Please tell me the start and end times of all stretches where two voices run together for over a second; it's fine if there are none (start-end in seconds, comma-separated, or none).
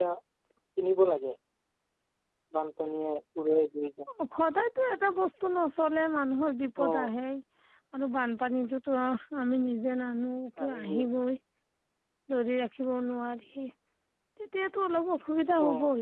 none